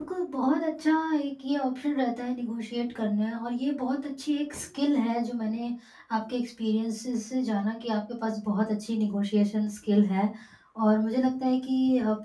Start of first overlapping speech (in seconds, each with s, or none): none